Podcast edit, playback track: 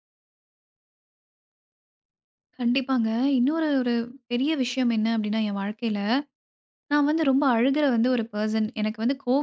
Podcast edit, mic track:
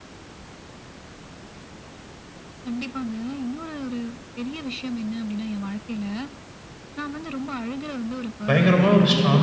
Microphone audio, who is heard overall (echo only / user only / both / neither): both